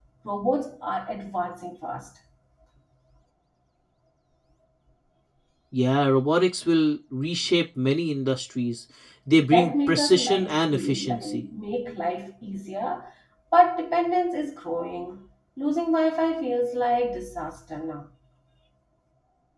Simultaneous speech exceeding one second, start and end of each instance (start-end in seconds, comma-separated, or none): 9.5-11.4